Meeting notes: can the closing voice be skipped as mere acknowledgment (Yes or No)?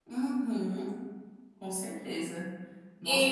No